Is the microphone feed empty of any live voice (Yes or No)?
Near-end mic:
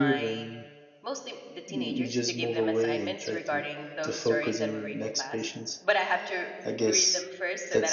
No